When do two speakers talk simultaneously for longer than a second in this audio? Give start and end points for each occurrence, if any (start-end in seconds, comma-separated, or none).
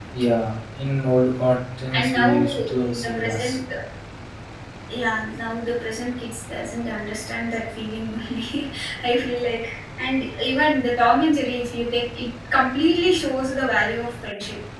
1.9-3.6